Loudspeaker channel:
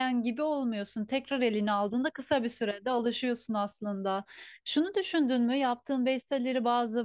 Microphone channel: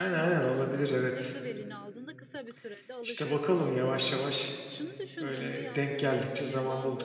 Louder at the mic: user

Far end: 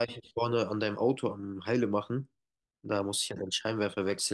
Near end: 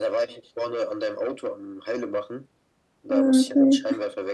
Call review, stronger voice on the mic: user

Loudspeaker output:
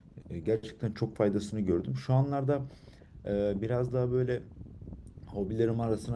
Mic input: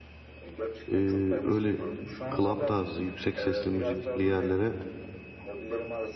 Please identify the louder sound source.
user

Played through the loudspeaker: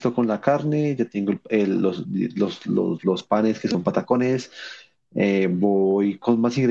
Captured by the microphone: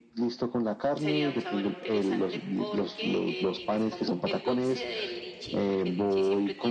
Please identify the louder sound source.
echo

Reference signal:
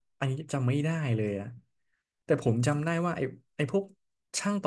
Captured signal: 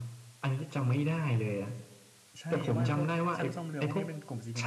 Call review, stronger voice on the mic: echo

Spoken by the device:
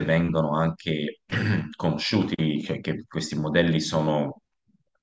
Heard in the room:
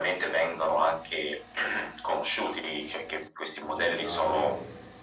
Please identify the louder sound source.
echo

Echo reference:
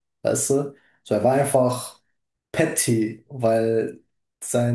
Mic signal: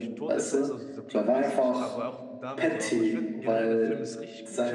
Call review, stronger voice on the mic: echo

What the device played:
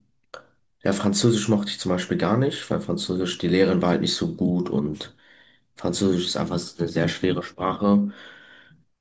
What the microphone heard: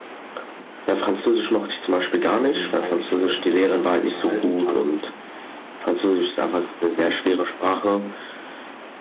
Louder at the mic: echo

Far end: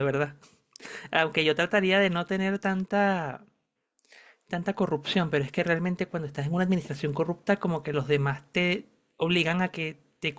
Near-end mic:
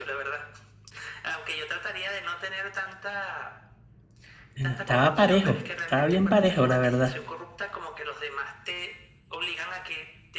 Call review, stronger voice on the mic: user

